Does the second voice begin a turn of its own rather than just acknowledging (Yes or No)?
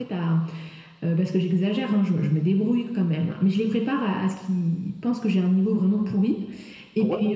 No